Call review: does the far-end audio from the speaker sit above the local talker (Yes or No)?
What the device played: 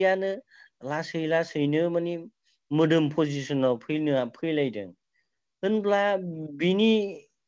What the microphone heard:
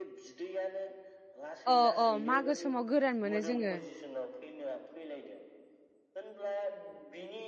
No